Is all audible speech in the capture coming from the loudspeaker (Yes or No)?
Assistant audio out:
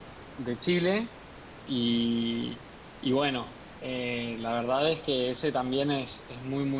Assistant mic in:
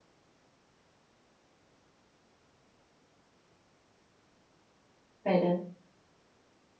No